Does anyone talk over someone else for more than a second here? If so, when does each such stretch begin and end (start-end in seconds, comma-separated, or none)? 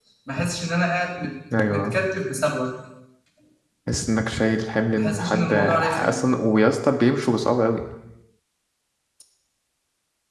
4.9-6.2